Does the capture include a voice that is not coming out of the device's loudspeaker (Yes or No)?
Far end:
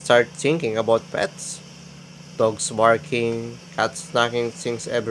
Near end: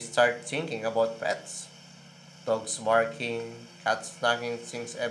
No